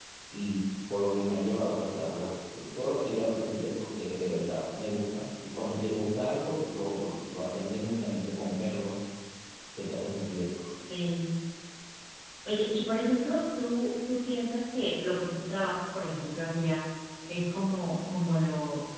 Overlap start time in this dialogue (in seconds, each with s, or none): none